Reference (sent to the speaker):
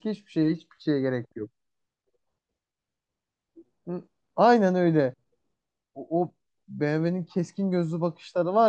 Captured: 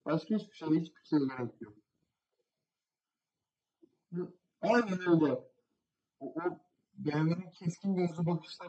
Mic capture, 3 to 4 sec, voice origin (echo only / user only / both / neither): neither